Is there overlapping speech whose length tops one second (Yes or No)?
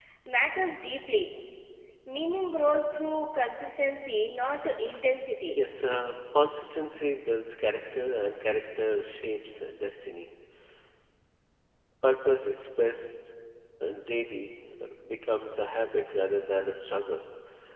No